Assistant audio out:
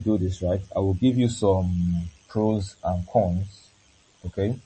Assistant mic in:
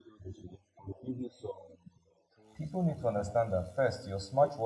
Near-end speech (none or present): present